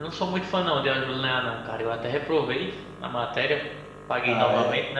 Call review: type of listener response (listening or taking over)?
taking over